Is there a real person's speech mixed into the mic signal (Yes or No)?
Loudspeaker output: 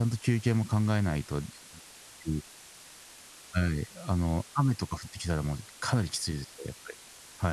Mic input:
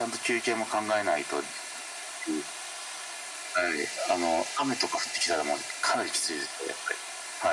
No